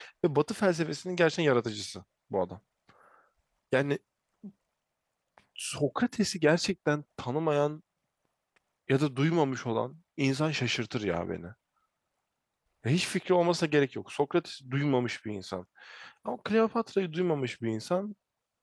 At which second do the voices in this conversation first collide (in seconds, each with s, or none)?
none